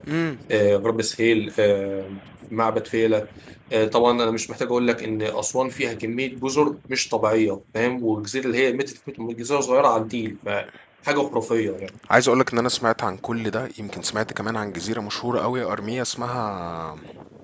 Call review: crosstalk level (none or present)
none